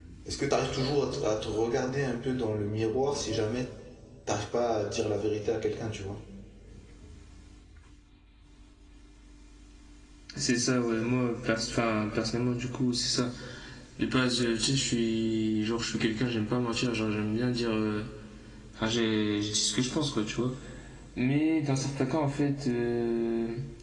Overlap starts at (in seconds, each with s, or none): none